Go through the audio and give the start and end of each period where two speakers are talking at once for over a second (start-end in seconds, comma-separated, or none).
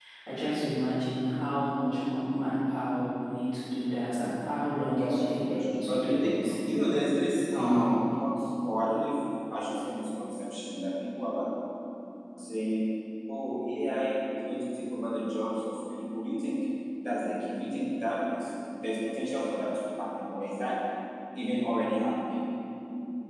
5.0-6.6